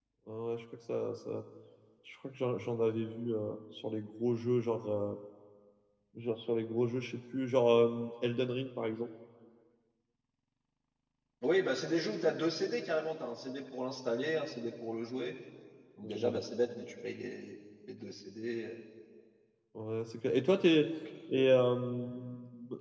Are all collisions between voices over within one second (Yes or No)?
Yes